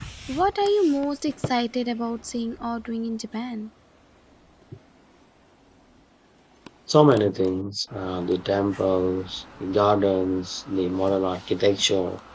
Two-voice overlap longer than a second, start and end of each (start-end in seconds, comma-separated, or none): none